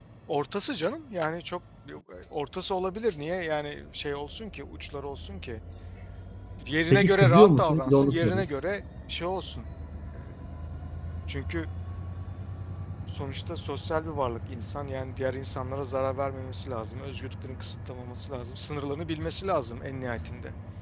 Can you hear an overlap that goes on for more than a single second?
Yes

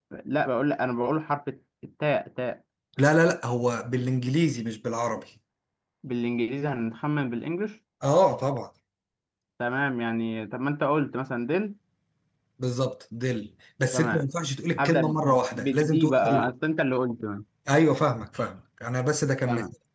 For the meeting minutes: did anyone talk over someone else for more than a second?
Yes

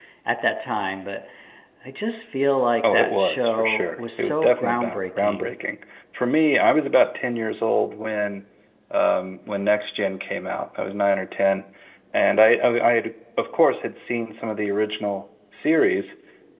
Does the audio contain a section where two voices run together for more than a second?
Yes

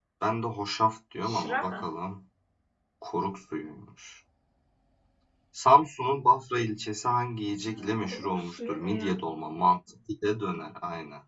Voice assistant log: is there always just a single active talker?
No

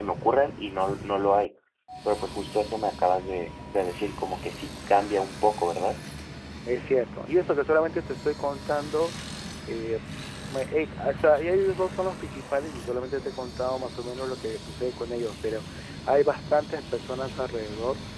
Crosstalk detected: No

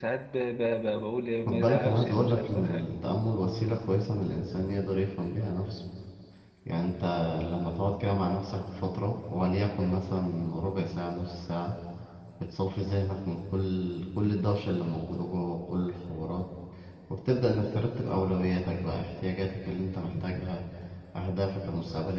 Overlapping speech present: Yes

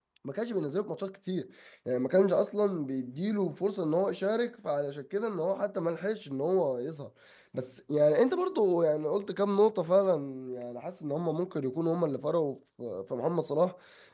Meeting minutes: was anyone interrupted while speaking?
No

